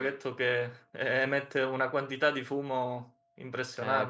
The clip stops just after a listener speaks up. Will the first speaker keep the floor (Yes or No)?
No